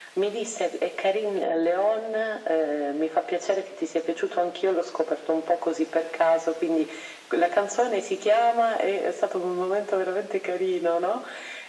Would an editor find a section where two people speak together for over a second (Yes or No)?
No